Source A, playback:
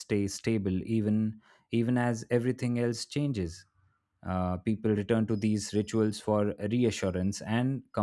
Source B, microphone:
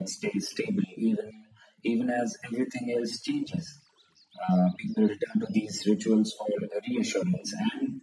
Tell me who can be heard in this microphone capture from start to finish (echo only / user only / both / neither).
echo only